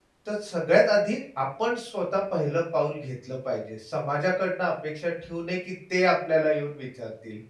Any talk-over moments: No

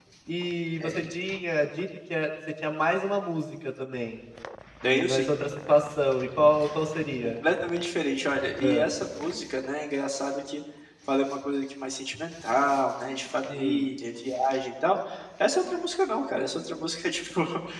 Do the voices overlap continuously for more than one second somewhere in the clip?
No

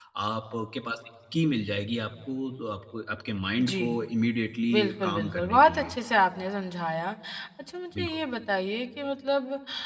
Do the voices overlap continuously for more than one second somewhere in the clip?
Yes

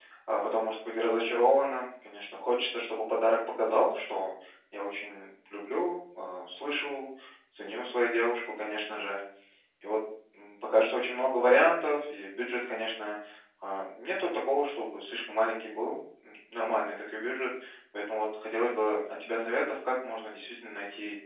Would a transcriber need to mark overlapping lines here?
No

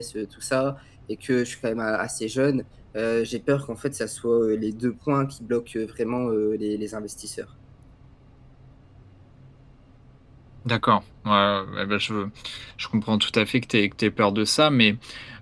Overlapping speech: No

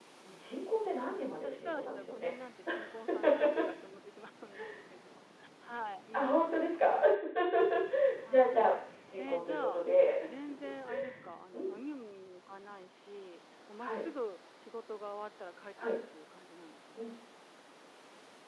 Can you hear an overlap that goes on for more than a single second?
Yes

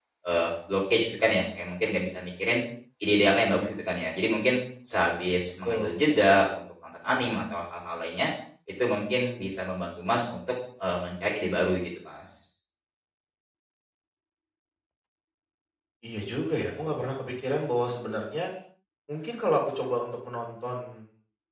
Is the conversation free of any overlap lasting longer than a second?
Yes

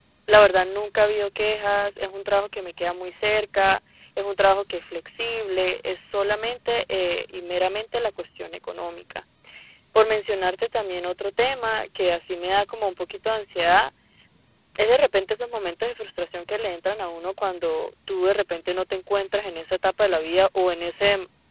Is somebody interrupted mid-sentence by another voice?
No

